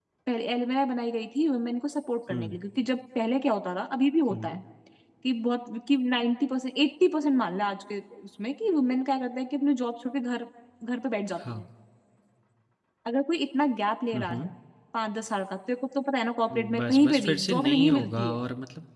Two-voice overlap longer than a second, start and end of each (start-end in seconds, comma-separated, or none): 16.5-18.4